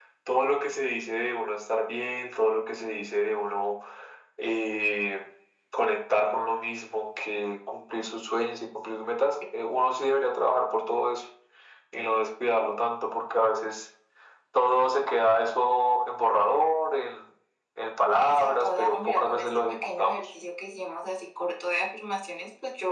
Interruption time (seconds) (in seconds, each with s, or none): 18.1 s